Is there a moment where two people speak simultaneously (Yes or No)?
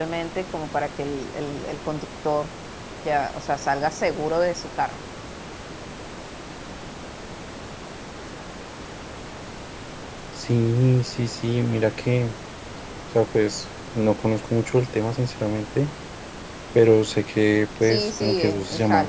Yes